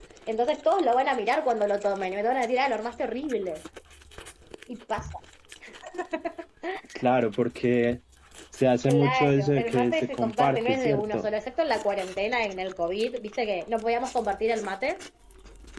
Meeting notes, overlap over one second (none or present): present